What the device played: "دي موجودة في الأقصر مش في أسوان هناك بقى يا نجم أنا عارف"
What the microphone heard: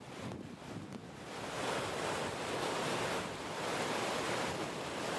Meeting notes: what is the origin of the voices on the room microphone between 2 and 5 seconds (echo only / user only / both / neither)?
neither